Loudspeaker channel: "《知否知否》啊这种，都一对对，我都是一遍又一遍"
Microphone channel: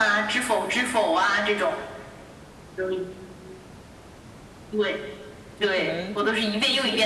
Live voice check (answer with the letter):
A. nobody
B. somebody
B